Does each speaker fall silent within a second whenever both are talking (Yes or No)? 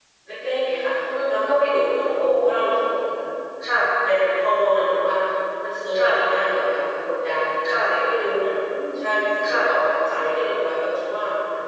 Yes